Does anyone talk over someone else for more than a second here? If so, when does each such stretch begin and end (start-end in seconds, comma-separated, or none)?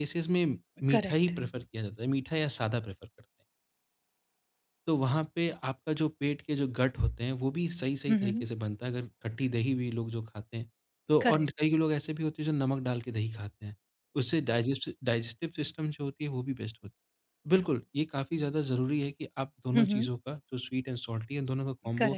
none